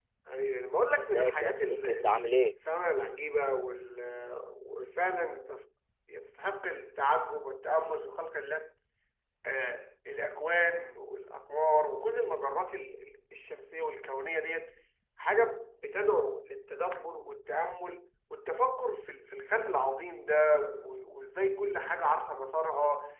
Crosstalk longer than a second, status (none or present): present